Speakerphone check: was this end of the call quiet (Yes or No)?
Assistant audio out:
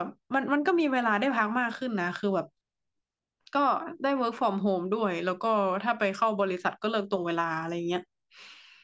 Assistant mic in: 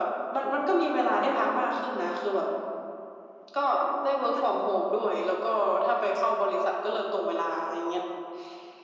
No